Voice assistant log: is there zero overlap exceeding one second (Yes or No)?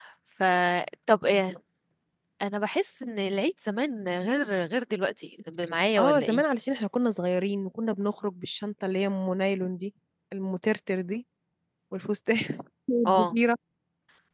Yes